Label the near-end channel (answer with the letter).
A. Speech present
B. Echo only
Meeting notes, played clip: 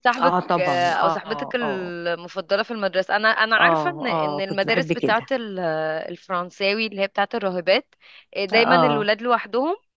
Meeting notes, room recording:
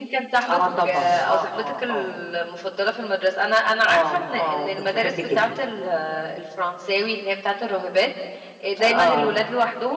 B